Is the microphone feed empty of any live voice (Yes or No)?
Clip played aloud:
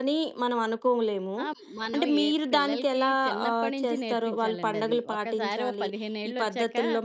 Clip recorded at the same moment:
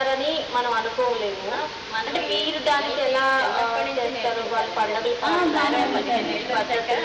No